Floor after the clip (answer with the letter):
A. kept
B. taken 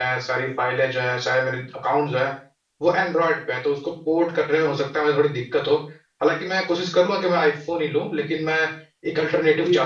B